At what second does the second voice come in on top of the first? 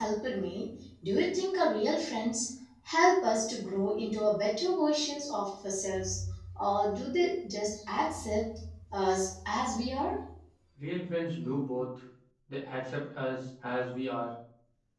none

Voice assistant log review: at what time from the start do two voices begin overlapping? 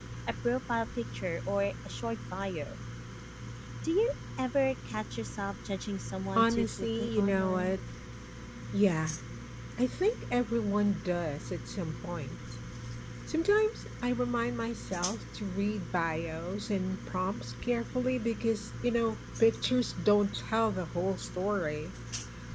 6 s

